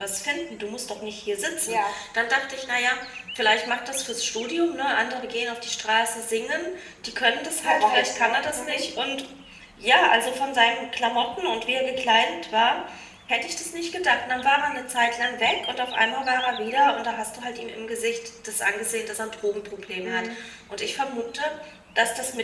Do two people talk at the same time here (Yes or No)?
Yes